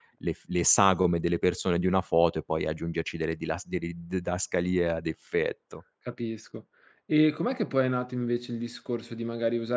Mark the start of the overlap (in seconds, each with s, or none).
none